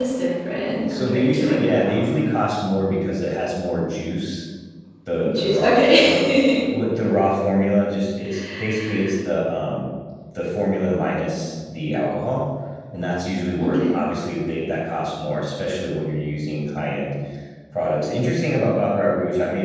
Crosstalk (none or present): present